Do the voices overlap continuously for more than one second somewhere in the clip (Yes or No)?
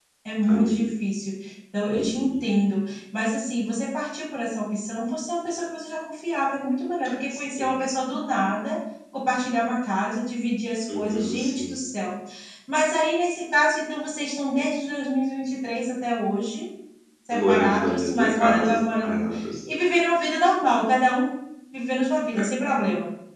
Yes